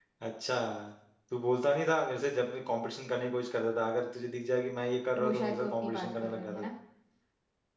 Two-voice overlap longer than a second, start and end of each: 5.2-6.6

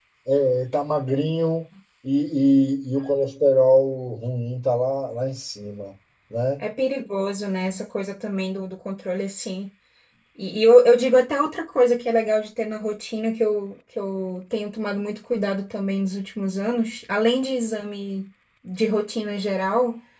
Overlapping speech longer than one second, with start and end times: none

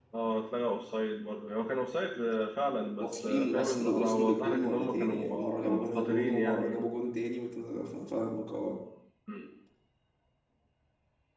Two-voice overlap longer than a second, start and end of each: 3.0-6.9

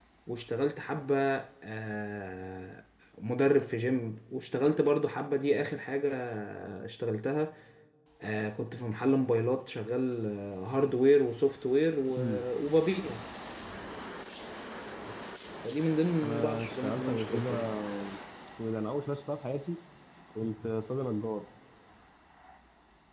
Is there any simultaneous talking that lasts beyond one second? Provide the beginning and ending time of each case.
16.2-17.7

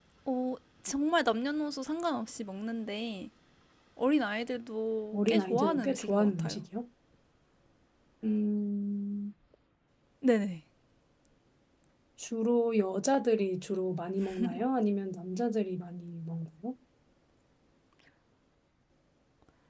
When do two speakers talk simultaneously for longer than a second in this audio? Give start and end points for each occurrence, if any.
5.1-6.6

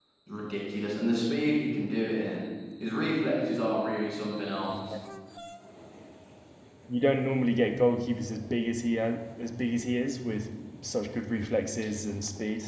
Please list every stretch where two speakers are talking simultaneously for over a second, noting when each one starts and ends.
none

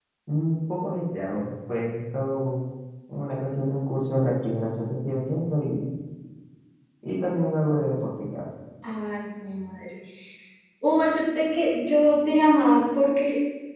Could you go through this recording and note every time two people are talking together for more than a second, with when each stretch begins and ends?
none

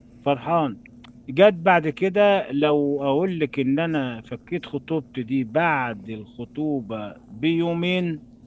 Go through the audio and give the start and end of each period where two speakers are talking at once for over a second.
none

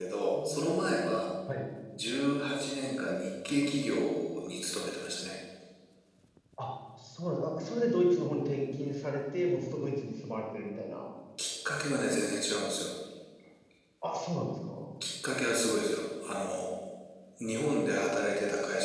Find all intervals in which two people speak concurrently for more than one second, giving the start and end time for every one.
none

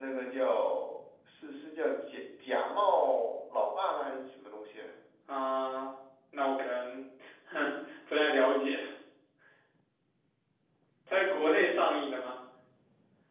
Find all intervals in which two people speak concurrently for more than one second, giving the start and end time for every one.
none

